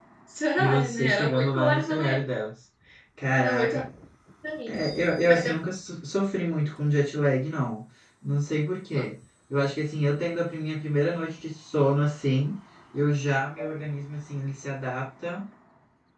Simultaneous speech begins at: 1 s

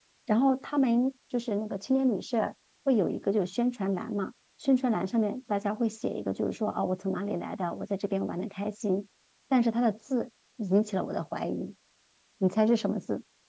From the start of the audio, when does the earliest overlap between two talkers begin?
none

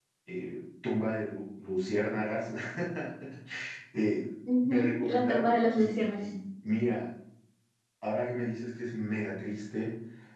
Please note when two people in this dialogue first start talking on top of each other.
5 s

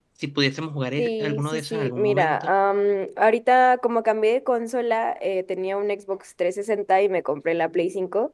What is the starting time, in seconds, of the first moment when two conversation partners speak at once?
1 s

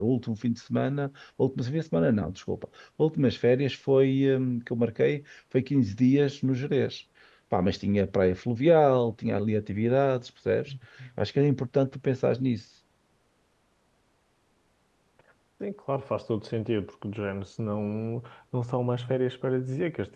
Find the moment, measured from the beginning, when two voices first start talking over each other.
none

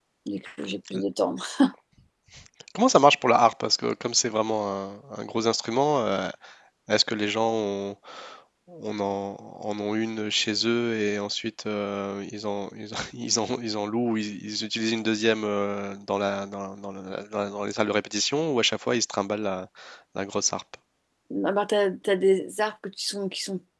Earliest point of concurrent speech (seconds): none

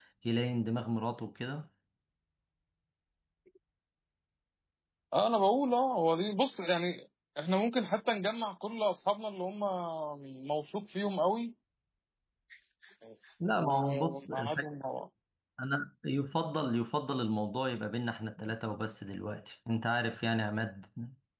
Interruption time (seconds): 14 s

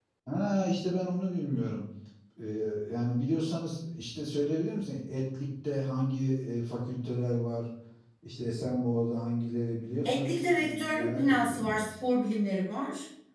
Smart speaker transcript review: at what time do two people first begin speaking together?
10 s

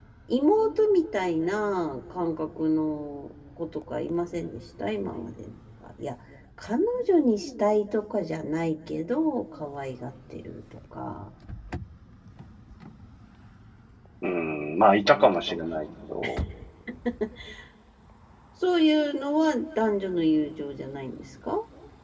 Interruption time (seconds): none

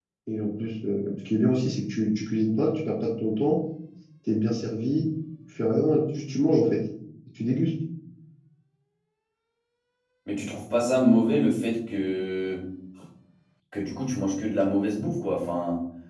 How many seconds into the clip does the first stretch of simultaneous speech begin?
none

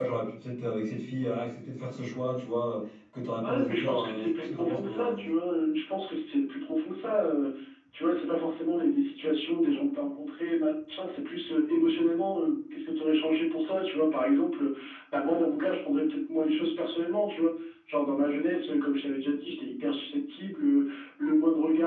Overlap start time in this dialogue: 3 s

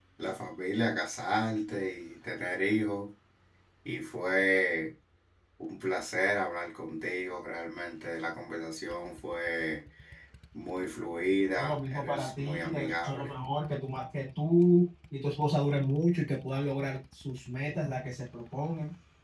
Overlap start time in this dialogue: 12 s

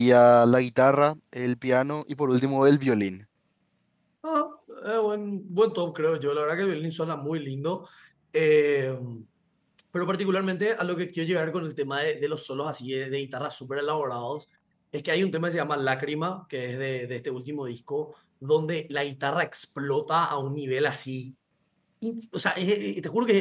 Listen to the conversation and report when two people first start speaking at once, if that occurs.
none

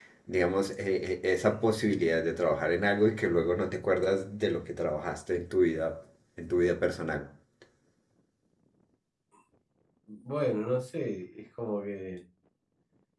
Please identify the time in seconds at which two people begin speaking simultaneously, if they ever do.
none

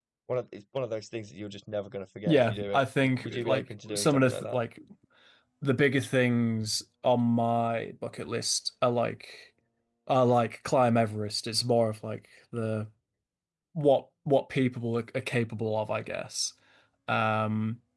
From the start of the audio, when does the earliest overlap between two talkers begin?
2 s

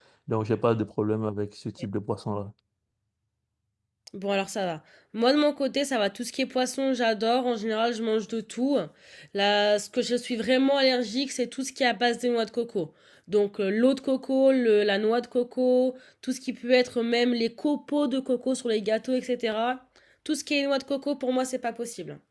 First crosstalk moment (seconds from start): none

